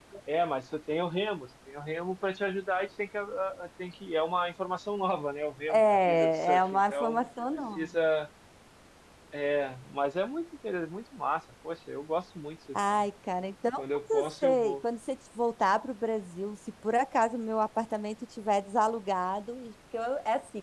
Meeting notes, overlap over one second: present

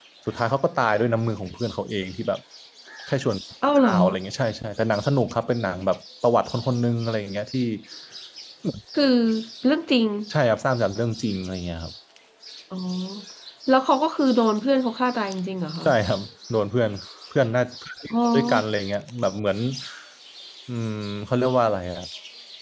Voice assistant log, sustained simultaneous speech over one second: none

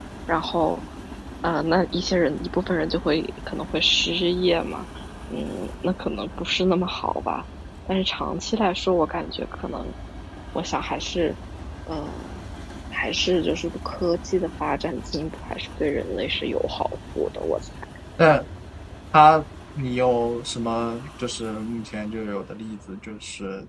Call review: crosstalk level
none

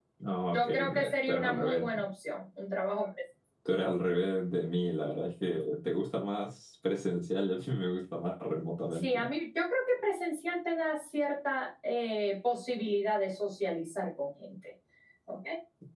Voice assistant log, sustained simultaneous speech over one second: present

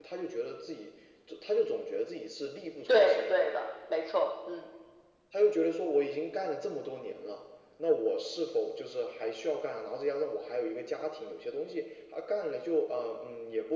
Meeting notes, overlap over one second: none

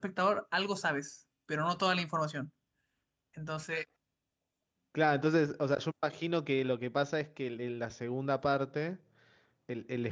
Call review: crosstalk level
none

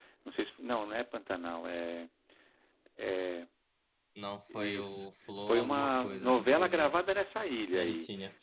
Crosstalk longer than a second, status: present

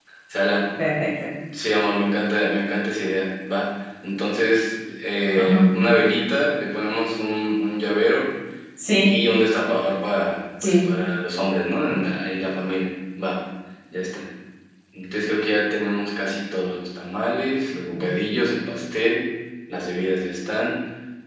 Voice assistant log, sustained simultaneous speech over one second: none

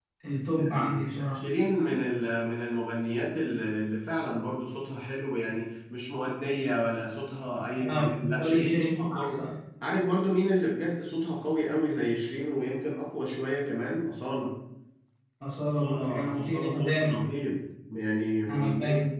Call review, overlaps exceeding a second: present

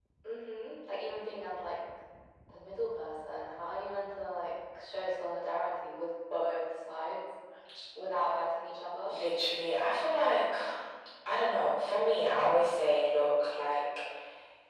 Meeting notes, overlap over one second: none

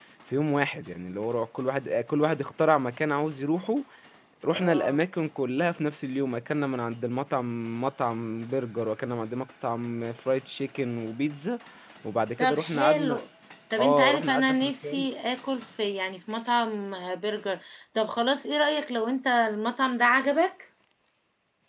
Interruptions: present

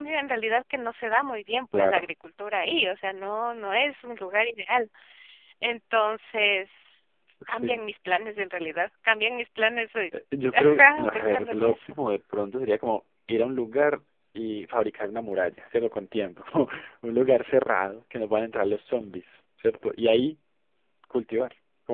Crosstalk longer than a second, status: present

